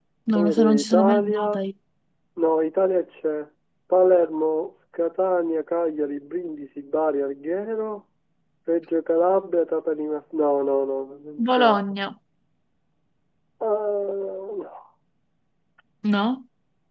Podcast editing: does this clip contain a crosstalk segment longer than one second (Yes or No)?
Yes